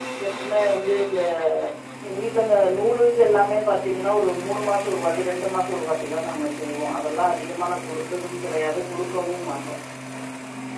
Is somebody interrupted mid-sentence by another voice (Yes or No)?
No